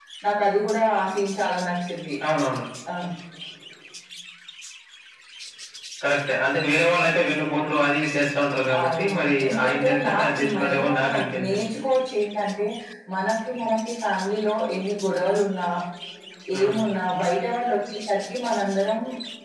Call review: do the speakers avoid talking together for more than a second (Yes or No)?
No